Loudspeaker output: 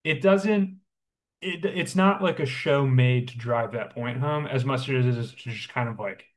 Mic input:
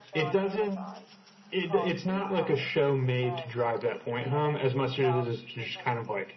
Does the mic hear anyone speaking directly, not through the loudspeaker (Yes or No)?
Yes